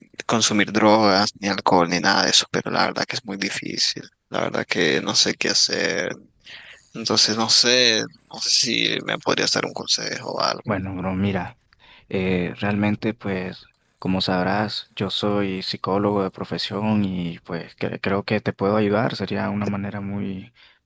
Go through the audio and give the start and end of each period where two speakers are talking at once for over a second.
none

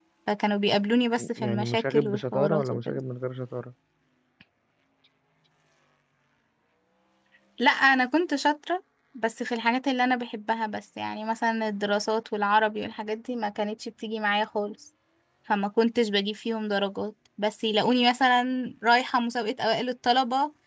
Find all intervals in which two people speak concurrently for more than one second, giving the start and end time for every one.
1.4-3.0

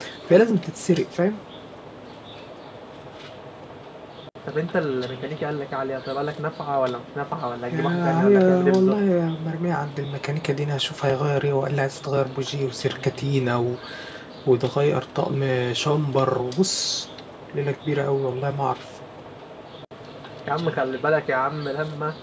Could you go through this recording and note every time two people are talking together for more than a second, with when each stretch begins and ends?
7.7-9.0

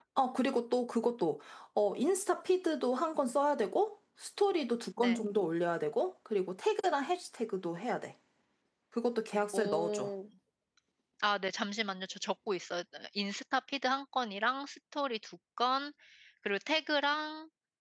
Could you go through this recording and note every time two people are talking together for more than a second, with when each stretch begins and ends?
none

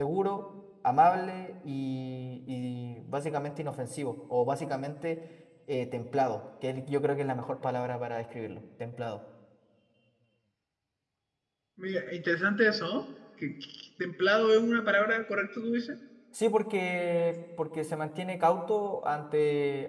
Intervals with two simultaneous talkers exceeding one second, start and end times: none

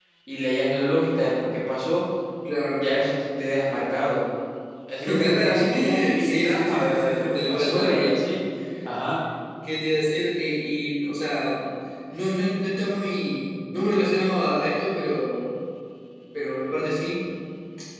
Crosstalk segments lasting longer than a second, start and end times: 5.0-8.1

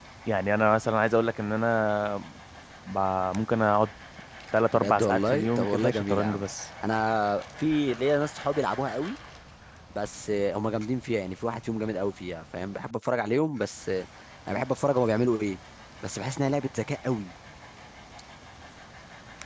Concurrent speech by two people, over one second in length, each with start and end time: 4.7-6.4

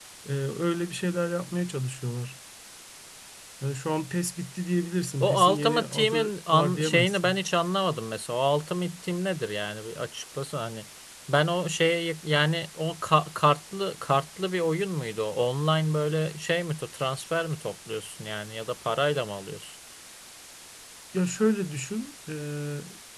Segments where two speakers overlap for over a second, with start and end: 5.2-7.3

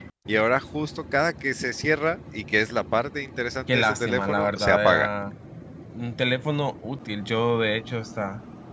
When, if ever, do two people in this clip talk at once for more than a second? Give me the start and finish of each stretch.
3.7-5.1

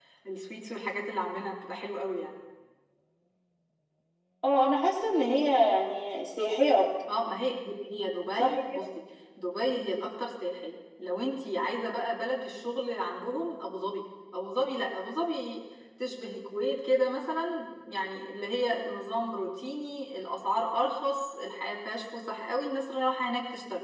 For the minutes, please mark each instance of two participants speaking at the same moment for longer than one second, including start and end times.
none

